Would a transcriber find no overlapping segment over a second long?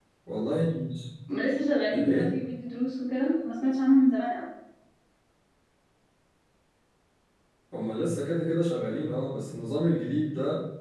Yes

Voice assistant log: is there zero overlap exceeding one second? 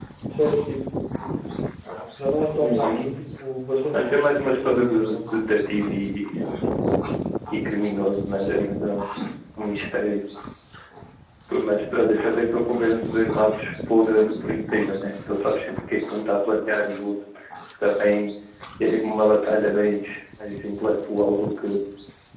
No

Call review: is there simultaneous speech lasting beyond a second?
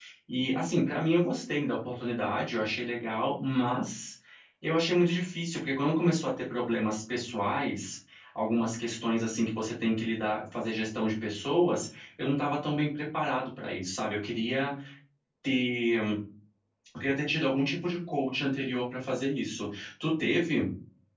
No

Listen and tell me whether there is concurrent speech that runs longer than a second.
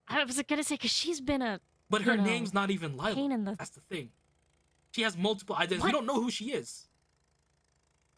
No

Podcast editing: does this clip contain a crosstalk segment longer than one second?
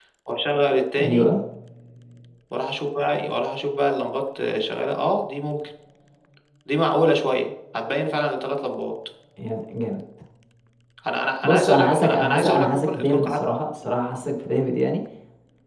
Yes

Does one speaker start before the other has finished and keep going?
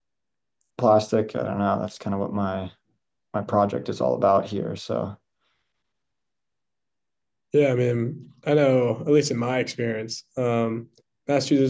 No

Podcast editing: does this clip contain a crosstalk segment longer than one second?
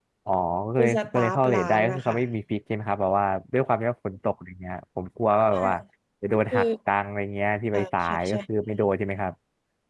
Yes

